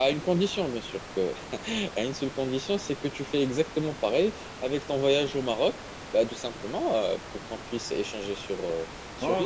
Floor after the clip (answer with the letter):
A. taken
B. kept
A